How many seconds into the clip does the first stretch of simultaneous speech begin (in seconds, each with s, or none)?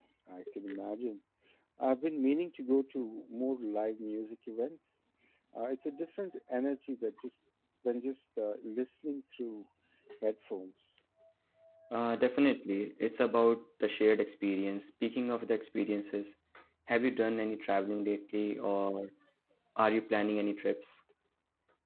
none